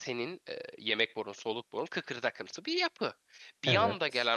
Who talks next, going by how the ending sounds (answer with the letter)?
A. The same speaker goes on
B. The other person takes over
A